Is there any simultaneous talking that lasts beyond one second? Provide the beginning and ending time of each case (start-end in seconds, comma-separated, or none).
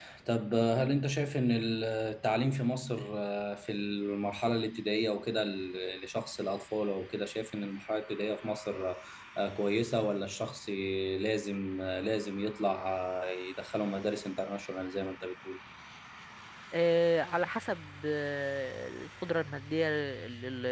none